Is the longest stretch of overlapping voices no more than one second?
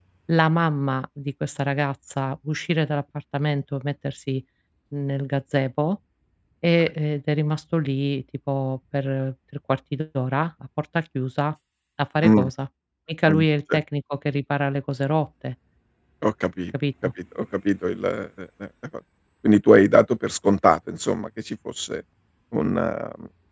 Yes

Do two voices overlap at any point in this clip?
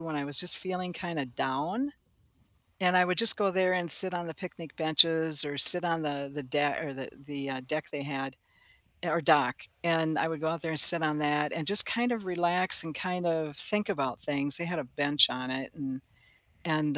No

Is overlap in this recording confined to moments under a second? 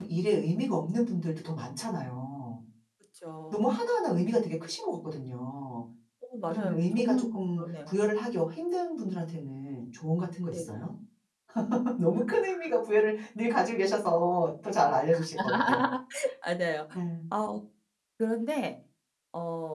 No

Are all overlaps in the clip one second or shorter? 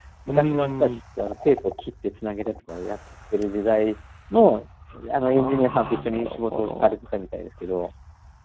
No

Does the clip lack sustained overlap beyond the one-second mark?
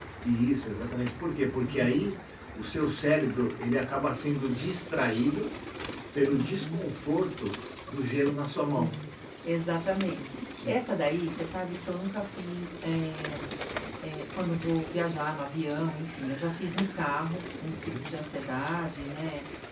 Yes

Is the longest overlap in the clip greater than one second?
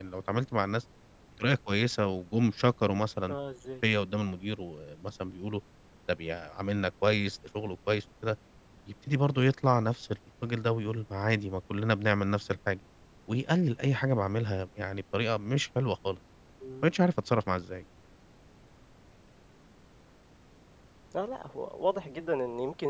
No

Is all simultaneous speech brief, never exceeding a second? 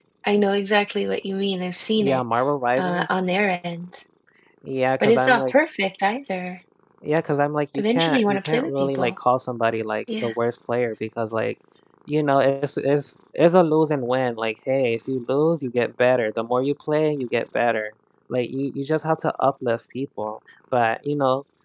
No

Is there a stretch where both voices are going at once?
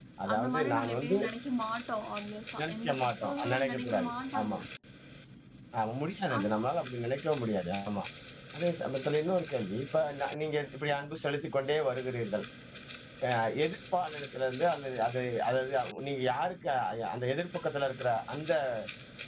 Yes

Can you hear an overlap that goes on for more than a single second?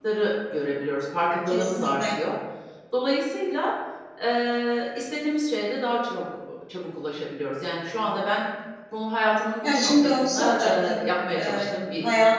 Yes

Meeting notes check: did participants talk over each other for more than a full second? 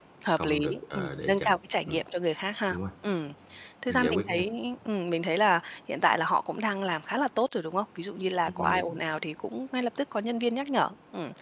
Yes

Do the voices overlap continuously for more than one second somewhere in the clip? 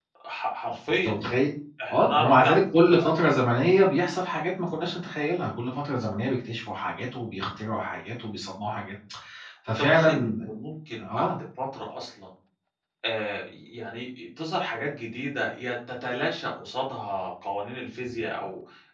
Yes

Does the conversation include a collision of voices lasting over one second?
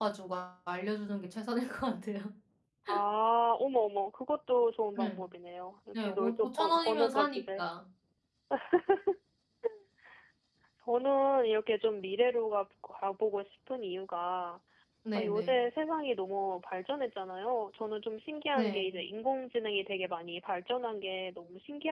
Yes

